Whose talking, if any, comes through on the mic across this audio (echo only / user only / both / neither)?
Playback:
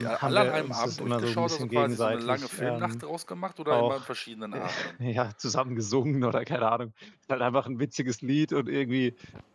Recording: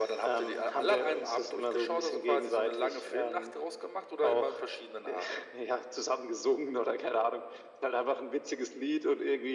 echo only